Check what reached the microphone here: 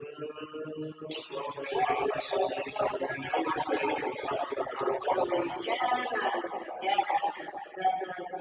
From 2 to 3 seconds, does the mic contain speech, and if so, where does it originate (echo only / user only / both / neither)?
echo only